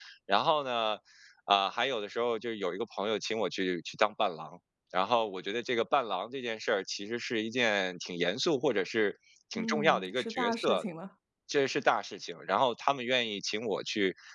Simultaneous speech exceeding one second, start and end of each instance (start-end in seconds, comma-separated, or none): 9.6-10.8